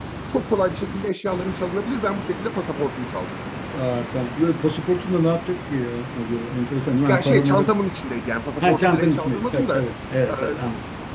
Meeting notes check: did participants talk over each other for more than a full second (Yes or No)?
Yes